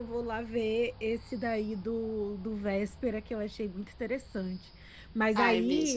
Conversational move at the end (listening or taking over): listening